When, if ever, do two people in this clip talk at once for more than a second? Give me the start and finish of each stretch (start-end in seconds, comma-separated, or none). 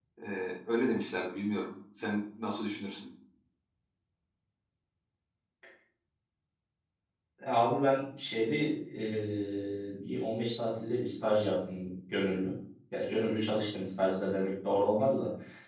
none